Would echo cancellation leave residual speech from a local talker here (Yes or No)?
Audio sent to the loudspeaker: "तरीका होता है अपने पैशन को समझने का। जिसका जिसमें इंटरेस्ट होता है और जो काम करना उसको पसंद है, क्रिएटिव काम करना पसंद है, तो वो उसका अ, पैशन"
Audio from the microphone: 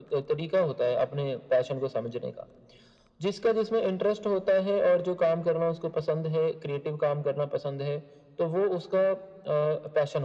No